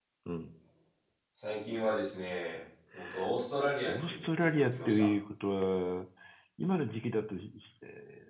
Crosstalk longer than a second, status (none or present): present